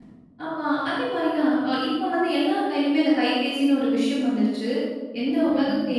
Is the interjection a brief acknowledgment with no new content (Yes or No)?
Yes